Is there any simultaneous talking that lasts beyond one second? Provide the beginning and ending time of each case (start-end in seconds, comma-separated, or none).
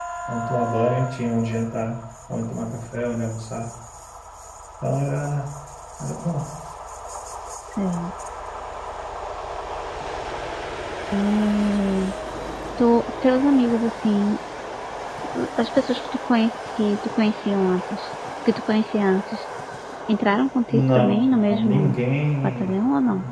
20.7-22.0